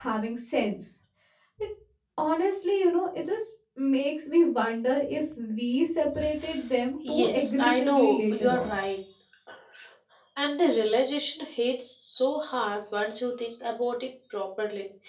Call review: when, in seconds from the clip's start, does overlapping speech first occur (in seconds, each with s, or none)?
7.0 s